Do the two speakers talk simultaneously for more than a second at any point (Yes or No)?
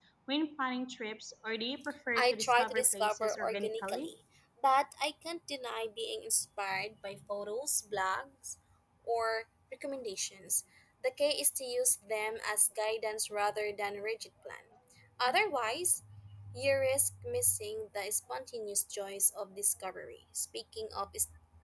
Yes